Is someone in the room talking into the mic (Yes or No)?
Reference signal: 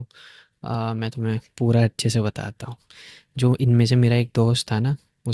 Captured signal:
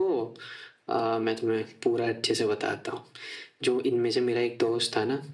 No